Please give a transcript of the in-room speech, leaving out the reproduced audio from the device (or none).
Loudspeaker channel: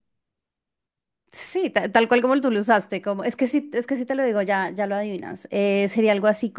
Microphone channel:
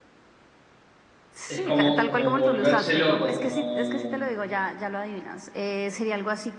es como, como volverse loco, como,